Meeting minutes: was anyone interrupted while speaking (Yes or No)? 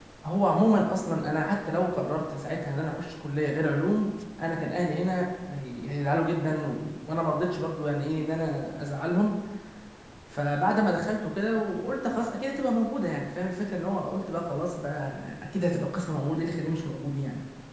No